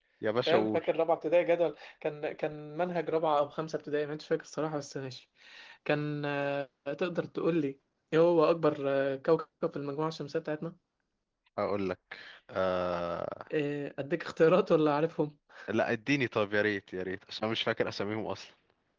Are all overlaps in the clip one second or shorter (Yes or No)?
Yes